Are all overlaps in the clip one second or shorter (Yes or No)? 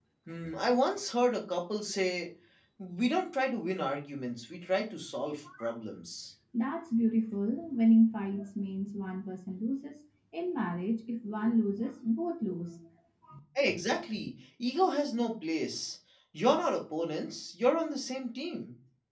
Yes